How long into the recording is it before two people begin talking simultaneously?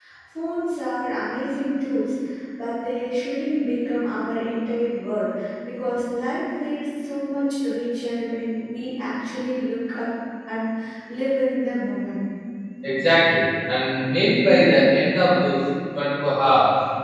none

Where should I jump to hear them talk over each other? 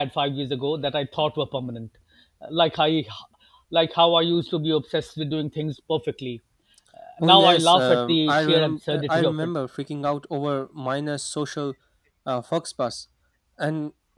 7.2 s

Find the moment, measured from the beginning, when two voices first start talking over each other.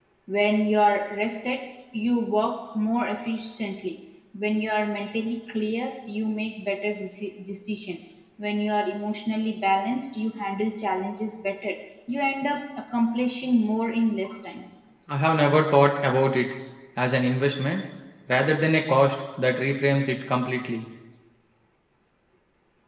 none

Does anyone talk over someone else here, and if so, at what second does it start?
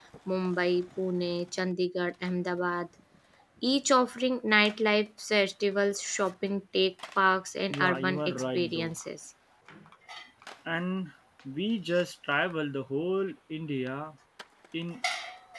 7.7 s

